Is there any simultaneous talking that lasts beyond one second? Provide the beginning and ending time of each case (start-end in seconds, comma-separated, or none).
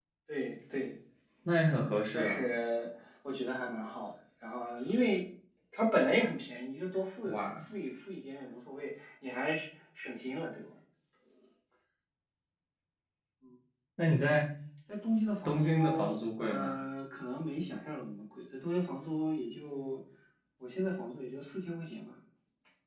15.4-16.7